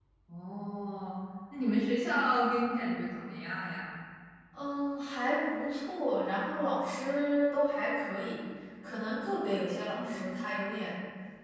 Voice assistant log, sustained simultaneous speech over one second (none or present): none